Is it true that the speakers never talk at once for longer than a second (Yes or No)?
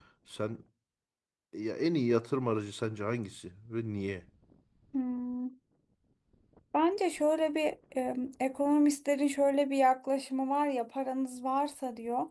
Yes